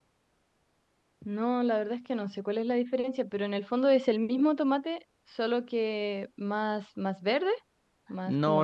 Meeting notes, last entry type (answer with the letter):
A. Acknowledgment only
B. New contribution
B